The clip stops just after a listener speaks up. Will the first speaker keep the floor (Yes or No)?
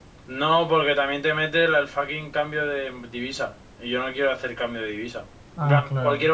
Yes